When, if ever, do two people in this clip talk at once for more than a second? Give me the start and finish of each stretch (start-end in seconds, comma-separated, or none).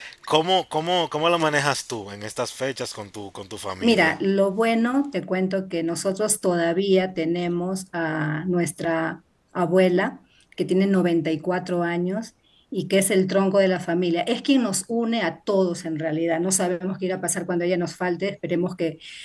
none